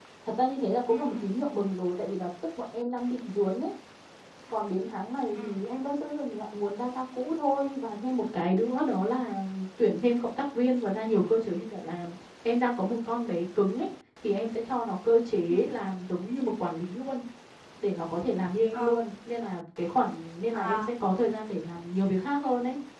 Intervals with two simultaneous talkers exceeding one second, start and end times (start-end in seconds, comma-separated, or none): none